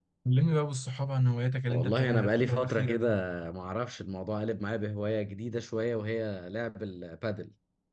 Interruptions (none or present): present